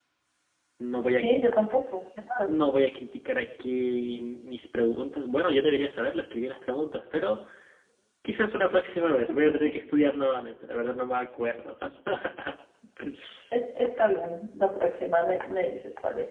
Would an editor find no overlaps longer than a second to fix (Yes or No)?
Yes